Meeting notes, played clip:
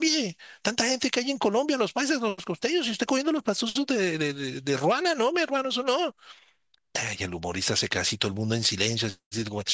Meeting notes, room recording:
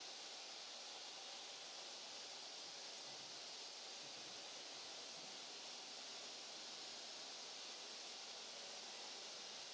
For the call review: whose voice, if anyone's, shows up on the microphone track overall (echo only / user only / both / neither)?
neither